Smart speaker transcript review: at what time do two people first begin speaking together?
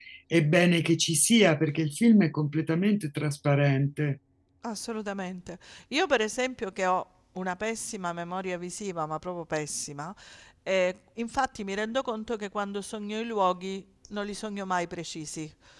none

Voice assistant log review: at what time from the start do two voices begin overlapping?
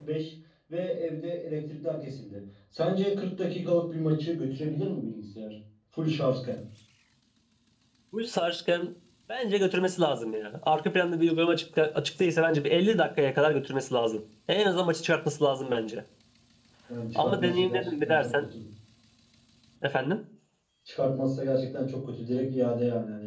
17 s

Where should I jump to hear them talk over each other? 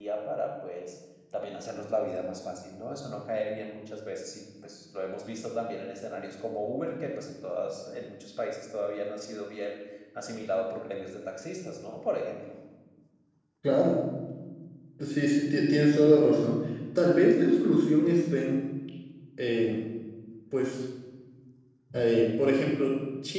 none

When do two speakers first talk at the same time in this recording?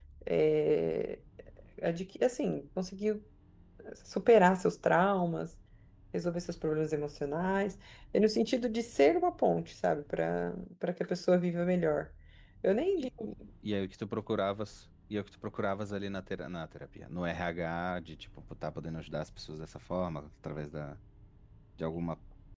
none

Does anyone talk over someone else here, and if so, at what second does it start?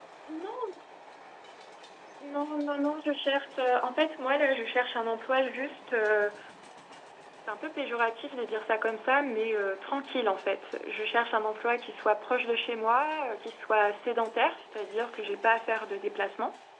none

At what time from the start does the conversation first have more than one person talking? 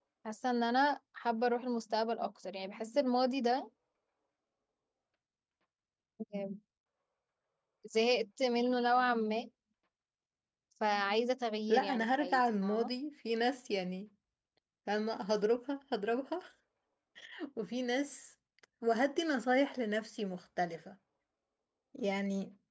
12 s

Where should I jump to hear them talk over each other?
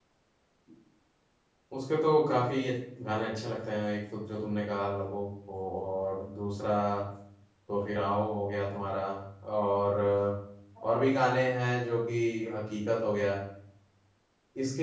none

